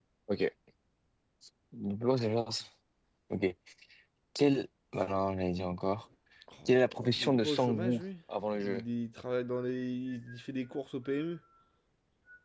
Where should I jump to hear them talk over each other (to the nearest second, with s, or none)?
7 s